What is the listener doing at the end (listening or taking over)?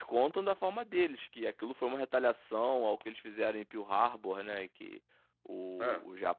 listening